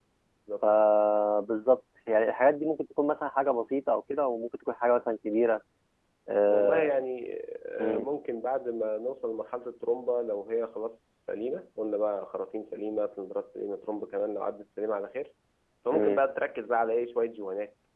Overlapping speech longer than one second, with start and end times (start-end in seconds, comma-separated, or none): none